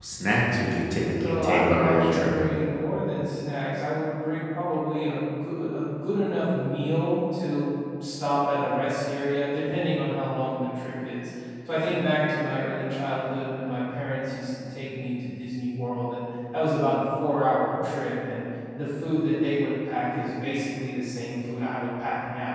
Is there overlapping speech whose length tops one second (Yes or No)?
Yes